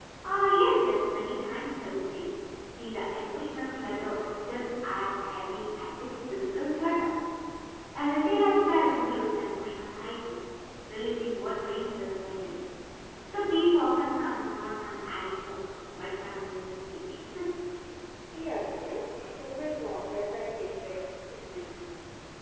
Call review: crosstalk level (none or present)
none